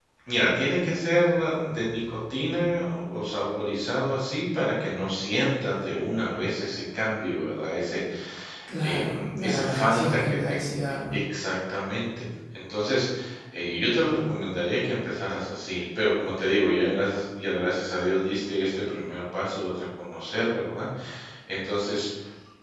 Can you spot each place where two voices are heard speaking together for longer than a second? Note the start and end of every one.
8.8-10.5

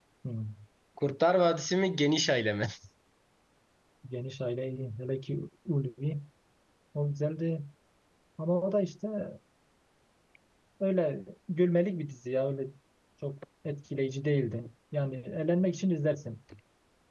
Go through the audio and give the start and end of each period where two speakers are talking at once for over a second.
none

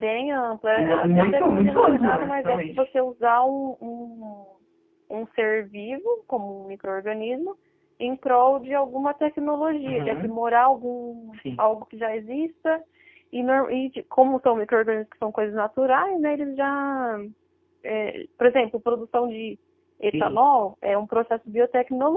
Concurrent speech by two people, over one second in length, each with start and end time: 0.8-2.8

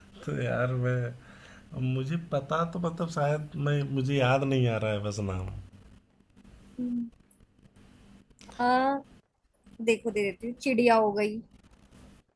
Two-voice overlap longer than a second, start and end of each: none

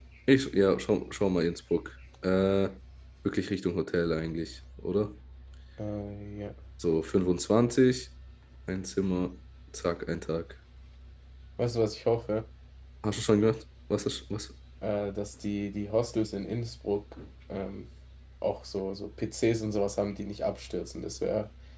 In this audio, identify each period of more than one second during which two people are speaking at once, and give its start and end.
none

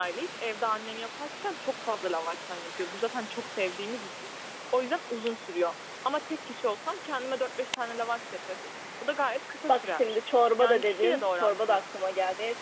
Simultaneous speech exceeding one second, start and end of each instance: 10.6-11.8

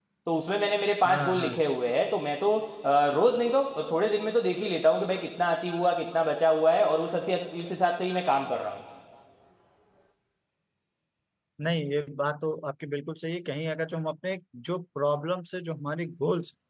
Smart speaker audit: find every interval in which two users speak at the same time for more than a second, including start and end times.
none

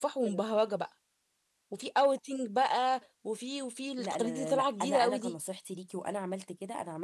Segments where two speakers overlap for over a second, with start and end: 4.0-5.3

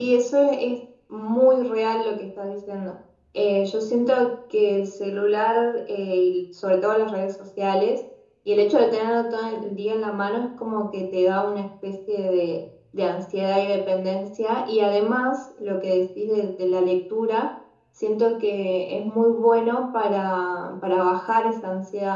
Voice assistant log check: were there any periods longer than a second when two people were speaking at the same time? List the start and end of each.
none

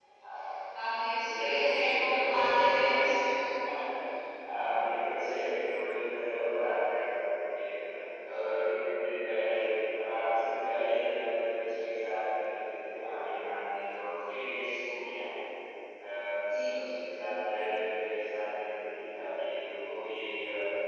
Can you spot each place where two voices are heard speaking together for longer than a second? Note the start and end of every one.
1.9-3.2

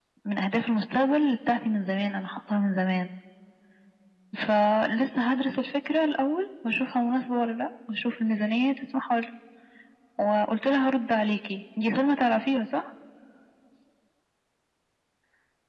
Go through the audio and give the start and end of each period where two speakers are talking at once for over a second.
none

